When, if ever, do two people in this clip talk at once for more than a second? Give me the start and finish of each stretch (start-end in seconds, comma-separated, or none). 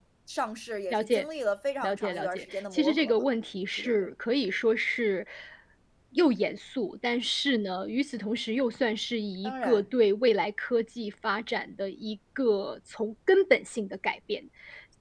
1.8-3.2